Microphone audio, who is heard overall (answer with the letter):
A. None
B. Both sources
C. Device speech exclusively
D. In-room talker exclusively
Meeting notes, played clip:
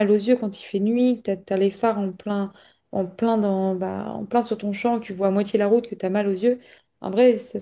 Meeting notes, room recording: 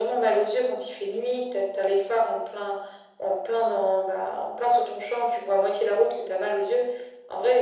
C